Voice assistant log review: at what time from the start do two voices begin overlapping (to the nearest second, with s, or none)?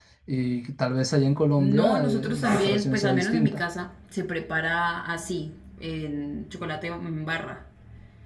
2 s